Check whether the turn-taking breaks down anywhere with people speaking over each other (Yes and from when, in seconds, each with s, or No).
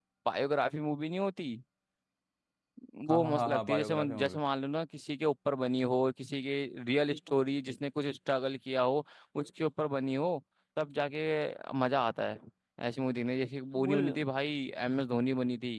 Yes, from 3.1 s